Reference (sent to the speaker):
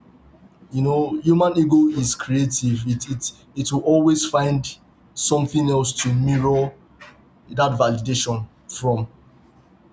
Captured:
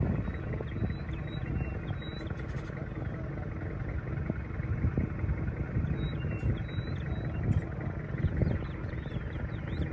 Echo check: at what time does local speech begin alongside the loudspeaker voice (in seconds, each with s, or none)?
none